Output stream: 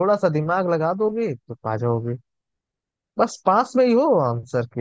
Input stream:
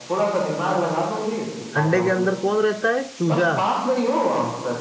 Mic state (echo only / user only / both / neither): both